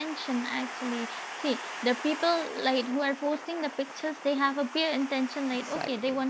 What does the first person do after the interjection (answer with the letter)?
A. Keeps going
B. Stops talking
A